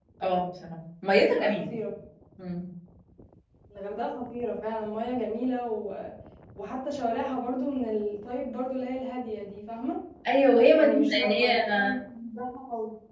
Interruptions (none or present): present